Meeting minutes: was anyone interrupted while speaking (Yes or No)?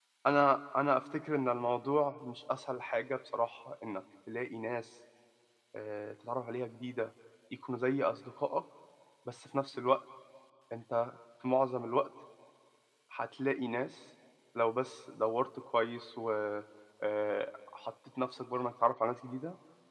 No